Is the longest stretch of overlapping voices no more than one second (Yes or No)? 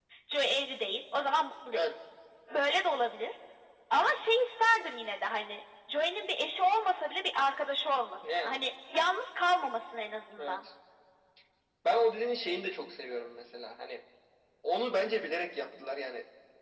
Yes